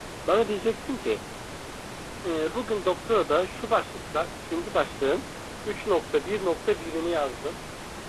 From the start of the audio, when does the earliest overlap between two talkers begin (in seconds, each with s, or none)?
none